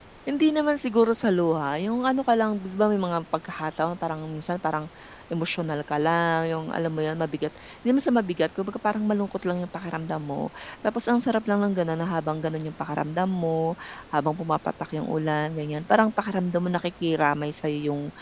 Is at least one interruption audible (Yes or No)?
No